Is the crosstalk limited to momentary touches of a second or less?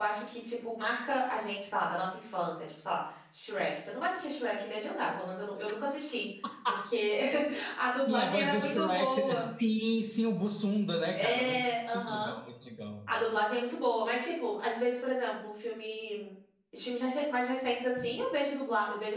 No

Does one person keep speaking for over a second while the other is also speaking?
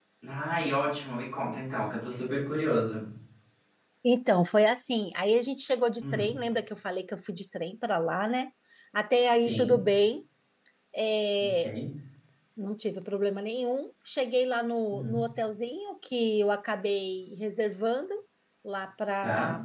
No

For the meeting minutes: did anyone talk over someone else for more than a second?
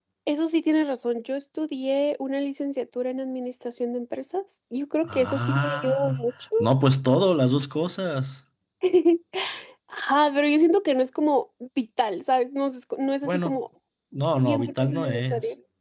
Yes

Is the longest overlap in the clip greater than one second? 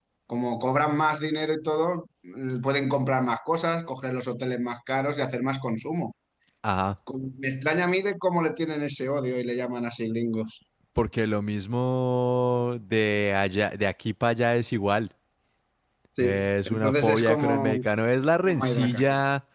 Yes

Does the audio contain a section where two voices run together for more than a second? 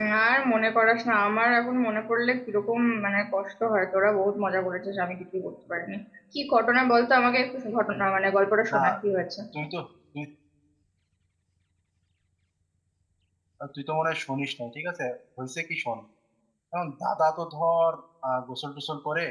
No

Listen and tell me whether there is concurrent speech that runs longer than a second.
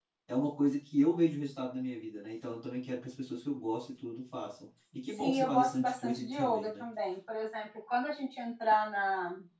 Yes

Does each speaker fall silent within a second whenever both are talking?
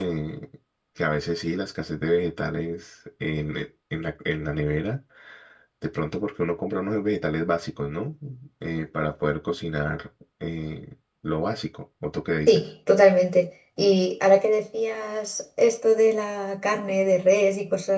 Yes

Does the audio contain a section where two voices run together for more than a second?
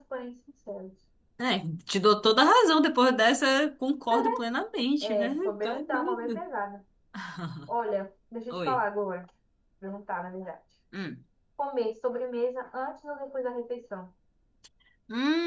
Yes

